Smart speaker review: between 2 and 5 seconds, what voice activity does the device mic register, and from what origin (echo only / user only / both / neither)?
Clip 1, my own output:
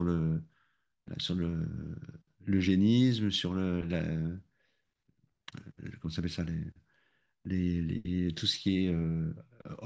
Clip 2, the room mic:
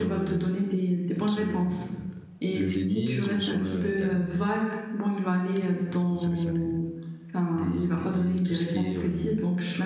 both